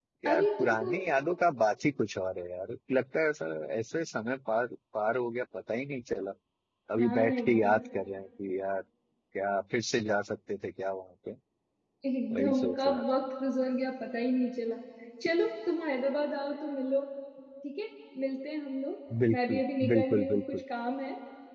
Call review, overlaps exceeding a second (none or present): present